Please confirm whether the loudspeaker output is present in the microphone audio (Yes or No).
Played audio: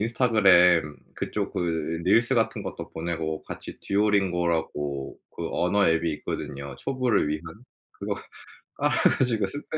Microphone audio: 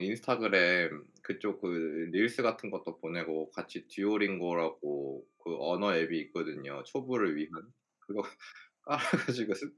Yes